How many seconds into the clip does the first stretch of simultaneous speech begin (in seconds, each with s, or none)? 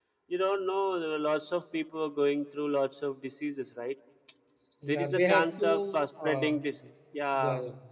4.9 s